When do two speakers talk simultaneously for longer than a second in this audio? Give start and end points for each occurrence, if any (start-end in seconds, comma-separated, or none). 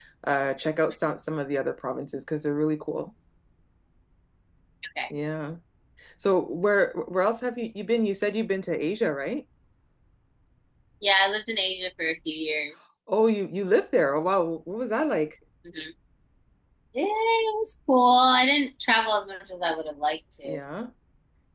none